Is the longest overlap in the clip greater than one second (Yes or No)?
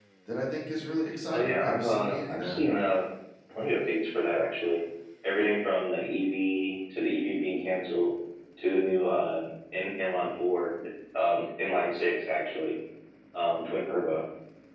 Yes